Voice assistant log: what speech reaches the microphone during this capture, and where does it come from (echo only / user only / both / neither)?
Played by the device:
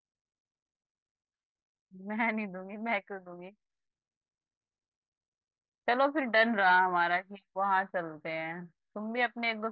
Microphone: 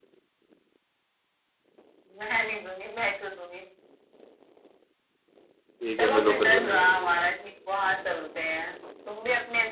both